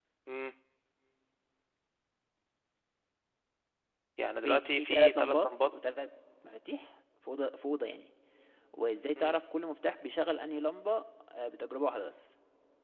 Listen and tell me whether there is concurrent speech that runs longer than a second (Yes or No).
Yes